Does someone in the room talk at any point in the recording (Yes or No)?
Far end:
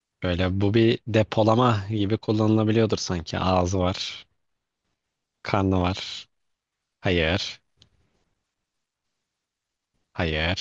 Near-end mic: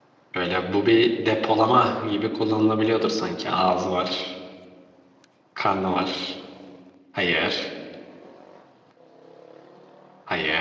No